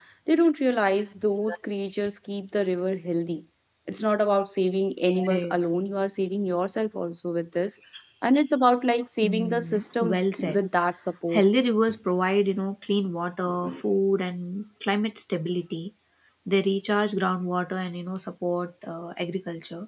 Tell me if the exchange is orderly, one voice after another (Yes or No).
No